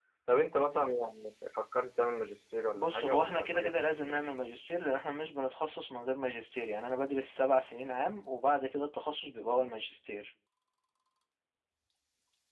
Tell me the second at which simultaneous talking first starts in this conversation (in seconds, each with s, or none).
2.8 s